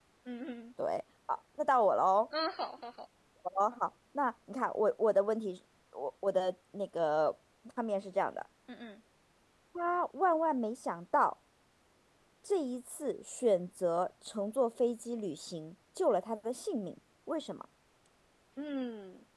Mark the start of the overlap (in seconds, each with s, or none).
none